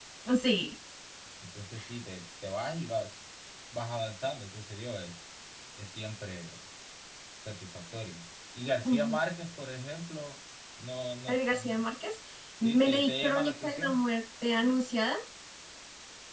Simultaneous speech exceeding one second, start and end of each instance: 12.6-14.0

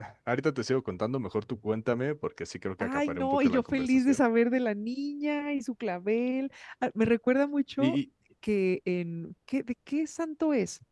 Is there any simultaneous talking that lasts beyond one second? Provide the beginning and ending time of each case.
2.8-4.2

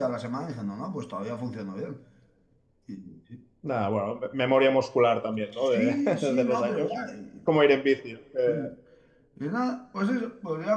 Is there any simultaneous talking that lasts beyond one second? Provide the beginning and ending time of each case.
5.6-6.9

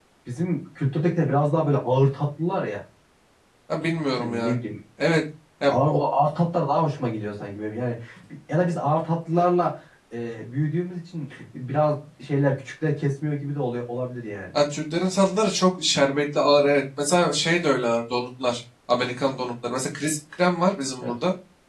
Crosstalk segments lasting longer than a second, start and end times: none

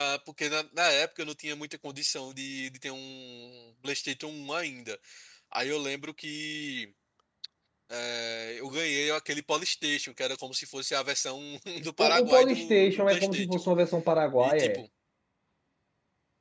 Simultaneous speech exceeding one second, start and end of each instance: 12.0-13.6

